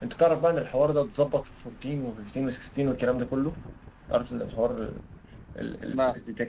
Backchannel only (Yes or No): Yes